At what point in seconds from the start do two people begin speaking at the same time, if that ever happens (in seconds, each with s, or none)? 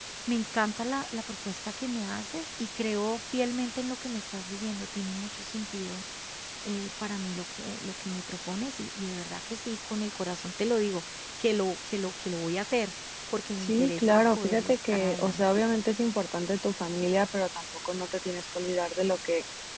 13.6 s